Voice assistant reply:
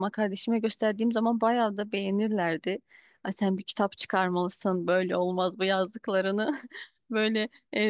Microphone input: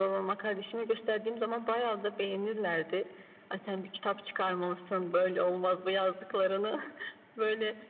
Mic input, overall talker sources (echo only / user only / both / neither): echo only